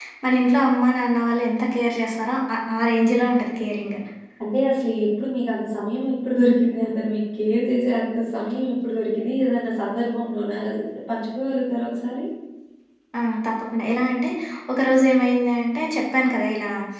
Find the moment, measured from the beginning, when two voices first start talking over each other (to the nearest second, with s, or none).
none